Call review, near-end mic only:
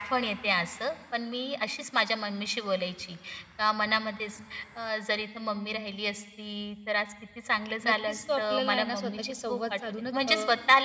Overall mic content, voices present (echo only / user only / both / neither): both